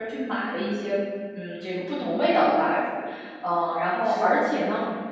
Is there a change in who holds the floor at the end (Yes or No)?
No